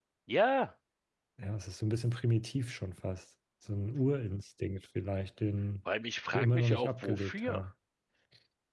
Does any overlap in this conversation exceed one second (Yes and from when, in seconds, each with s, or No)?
Yes, from 6.3 s